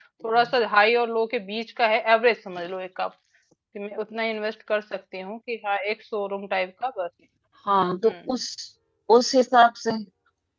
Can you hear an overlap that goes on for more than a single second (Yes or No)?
No